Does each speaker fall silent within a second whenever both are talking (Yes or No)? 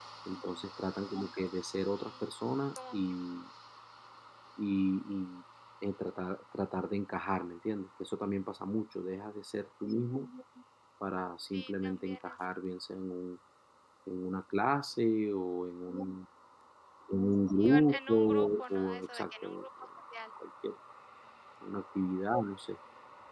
No